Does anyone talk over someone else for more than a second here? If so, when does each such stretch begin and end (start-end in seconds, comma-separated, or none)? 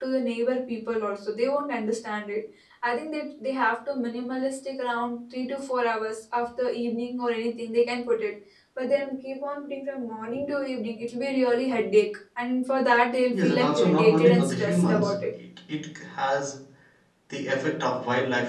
13.3-15.3